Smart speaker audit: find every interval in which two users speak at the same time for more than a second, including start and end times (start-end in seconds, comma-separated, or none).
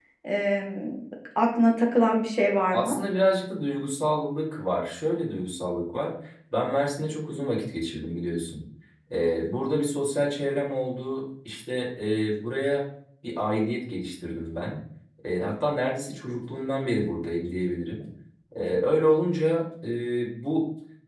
none